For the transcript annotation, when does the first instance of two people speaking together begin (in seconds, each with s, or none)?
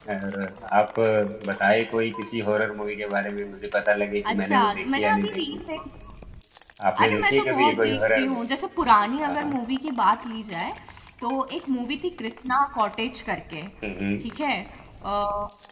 4.3 s